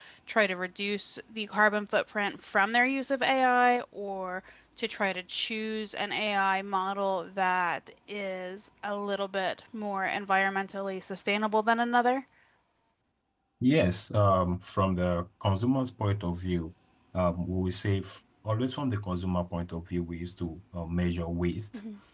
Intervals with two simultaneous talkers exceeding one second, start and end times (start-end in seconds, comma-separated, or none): none